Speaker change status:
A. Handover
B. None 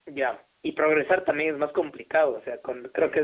B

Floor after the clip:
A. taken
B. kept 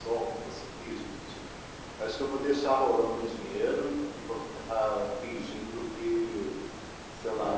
B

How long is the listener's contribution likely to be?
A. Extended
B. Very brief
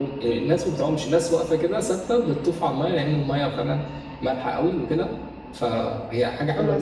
A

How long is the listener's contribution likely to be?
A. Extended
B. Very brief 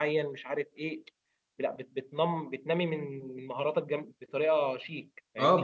A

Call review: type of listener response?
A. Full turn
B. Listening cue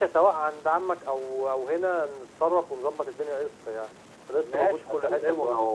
A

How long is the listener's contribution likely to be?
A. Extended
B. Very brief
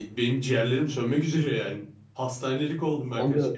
A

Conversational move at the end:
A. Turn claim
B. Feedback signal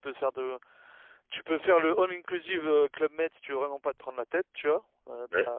B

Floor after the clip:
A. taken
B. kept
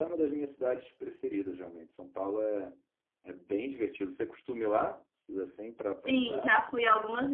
A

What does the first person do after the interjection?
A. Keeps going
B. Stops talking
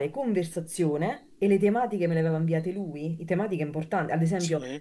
A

